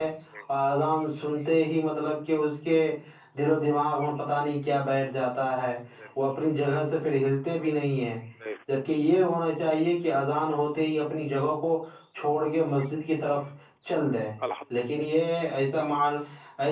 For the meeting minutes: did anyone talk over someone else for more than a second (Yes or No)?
No